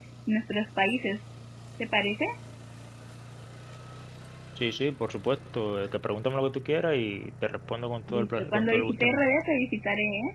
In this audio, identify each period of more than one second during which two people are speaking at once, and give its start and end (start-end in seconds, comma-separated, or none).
8.1-9.3